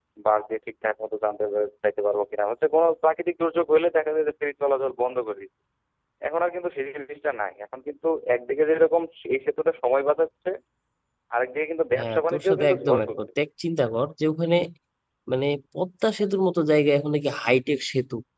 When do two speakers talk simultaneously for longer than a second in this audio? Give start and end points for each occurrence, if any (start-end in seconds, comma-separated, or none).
12.0-13.2